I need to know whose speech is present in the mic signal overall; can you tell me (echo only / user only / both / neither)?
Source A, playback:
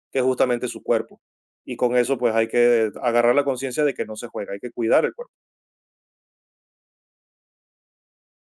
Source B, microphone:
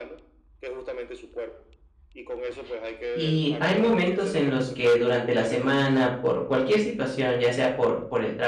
both